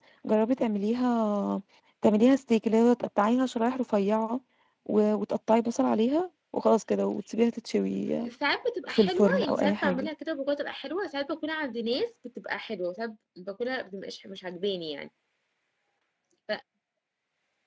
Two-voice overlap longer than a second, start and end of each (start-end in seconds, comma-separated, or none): 8.9-10.1